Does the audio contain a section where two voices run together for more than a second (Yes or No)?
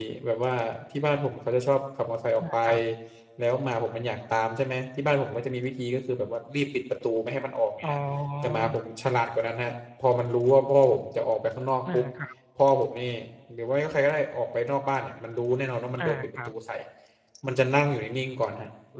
No